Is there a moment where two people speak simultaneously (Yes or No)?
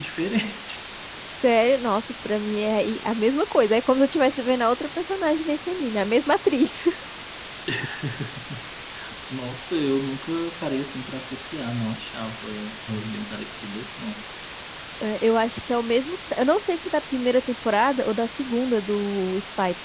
No